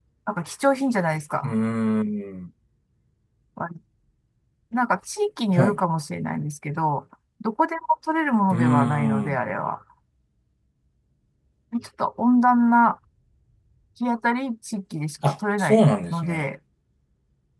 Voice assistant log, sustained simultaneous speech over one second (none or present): present